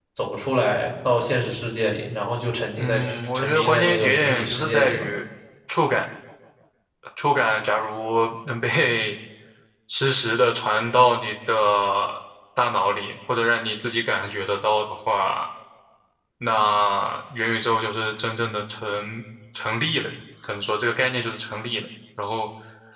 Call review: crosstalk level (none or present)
present